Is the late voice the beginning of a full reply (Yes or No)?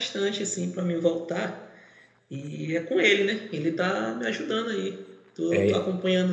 No